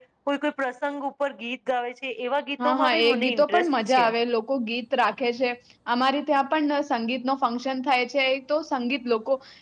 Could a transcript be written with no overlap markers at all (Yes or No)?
No